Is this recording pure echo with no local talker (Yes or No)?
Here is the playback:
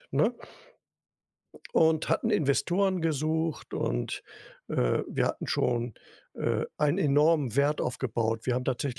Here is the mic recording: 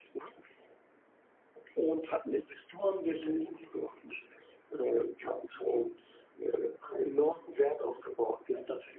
No